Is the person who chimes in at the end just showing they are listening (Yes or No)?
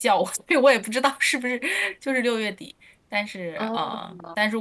Yes